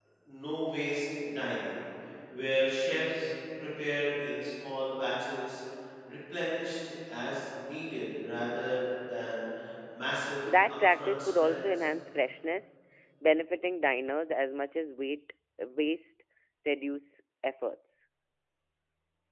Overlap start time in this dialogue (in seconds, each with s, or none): 10.5 s